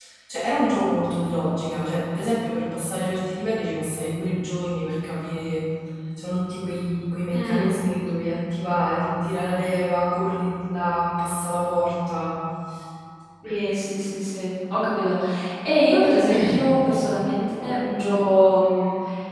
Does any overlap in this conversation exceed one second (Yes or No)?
No